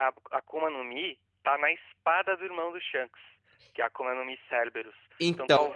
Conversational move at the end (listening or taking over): listening